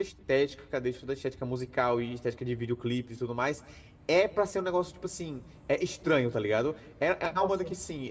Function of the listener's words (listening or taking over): listening